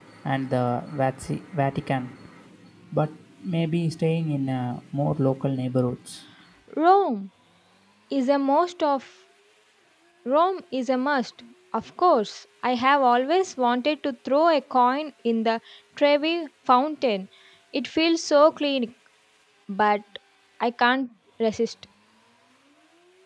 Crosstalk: none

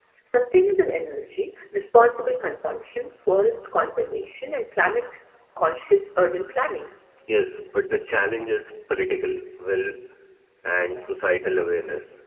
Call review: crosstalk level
none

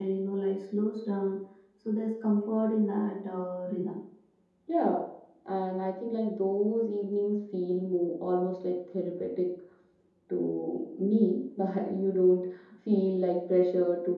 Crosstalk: none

